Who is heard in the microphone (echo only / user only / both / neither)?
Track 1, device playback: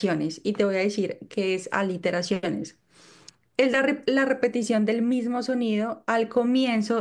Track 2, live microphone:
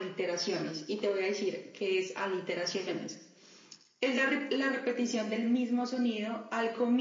echo only